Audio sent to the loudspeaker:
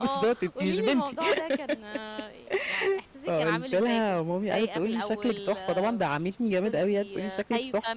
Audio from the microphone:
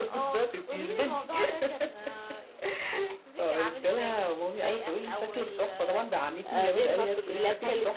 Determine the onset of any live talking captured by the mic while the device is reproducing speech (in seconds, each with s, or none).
6.5 s